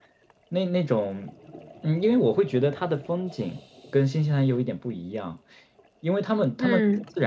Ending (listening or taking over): listening